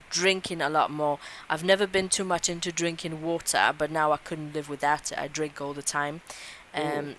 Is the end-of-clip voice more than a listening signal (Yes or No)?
No